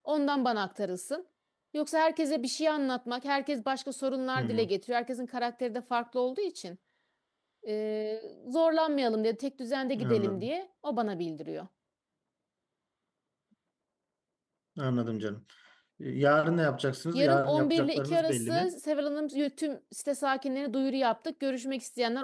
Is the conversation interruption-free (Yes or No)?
No